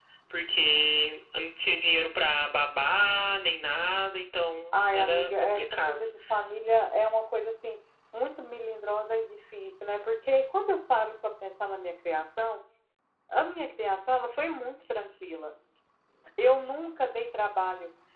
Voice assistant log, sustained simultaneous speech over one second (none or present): present